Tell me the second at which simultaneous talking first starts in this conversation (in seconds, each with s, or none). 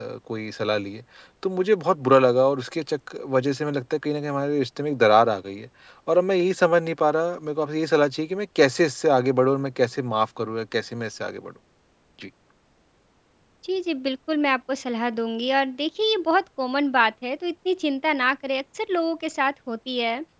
none